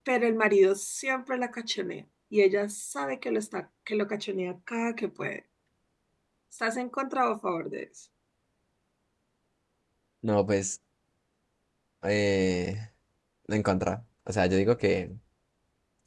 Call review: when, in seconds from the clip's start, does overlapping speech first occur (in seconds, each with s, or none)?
none